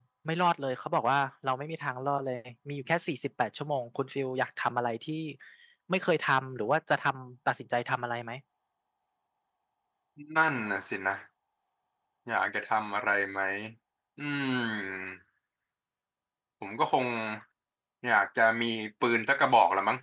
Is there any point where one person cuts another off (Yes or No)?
No